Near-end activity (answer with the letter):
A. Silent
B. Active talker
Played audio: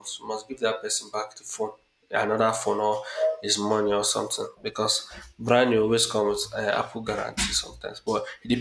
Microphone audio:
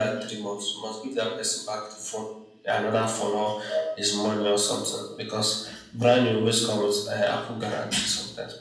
A